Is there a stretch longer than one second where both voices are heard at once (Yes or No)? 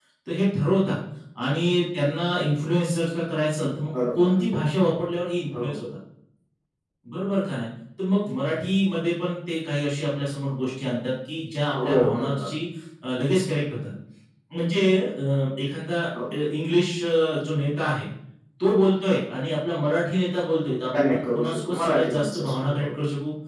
Yes